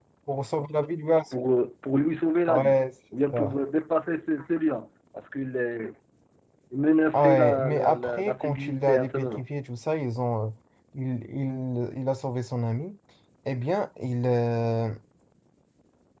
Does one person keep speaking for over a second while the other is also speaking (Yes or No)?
Yes